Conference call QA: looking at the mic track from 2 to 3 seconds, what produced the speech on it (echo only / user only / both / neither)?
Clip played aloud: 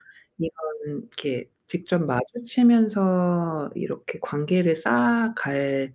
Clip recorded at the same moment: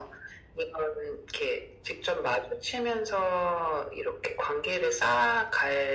echo only